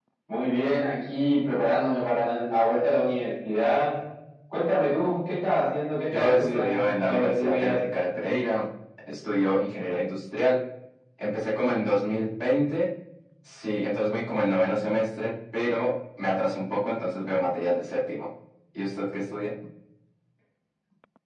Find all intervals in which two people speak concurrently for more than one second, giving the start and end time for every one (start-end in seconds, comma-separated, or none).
6.1-7.8